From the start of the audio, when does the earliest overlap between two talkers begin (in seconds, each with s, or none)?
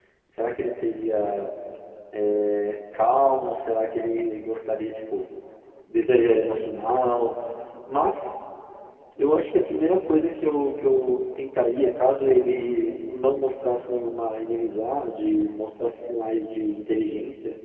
none